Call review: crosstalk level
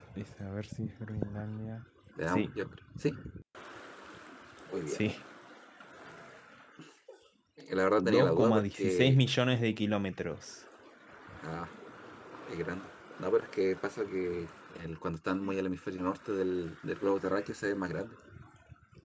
present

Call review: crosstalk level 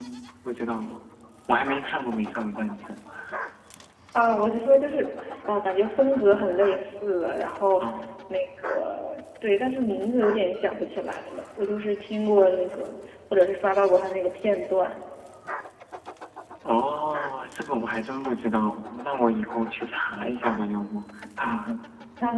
none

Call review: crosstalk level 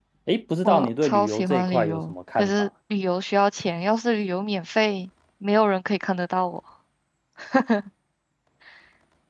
present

